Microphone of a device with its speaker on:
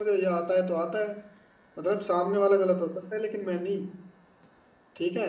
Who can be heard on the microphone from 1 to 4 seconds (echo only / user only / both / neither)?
user only